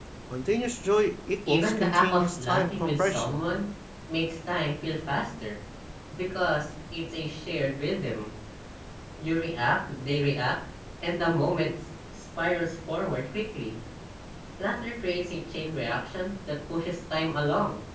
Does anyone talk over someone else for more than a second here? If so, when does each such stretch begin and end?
1.5-3.5

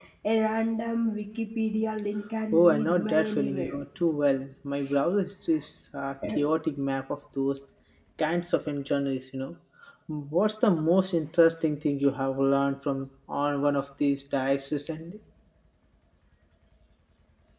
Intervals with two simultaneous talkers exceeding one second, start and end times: 2.5-3.7

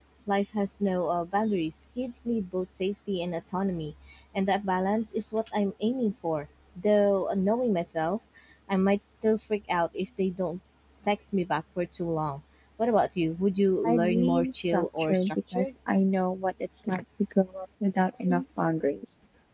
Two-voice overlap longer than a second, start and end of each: 13.9-15.7

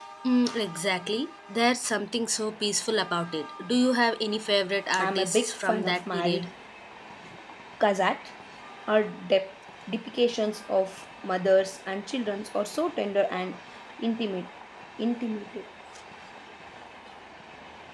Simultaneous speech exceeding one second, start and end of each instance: 5.0-6.5

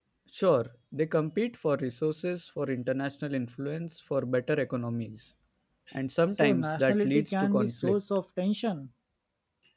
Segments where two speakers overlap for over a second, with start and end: 6.3-8.0

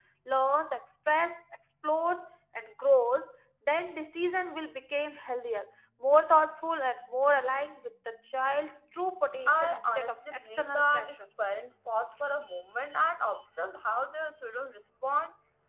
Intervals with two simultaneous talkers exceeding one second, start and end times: 9.5-11.2

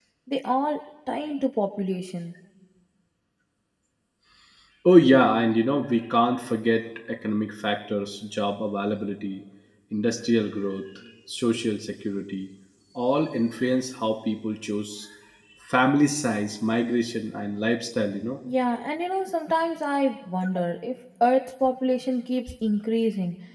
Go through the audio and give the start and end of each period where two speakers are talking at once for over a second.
none

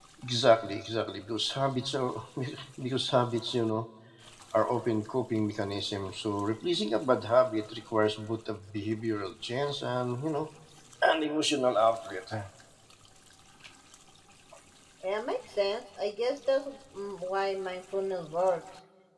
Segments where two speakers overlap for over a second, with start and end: none

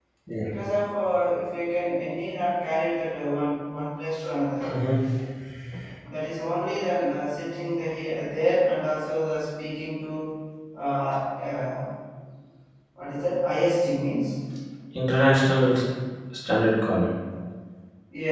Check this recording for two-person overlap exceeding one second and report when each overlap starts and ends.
none

